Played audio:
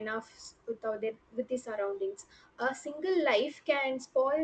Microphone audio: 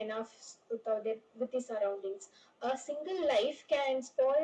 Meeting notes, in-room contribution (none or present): none